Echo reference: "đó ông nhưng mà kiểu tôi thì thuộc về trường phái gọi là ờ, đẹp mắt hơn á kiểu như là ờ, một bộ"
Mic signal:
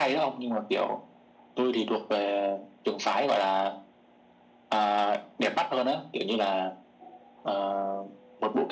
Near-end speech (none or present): none